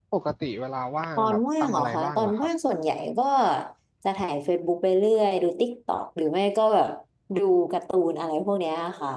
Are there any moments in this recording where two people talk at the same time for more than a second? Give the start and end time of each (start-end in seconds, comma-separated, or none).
1.2-2.5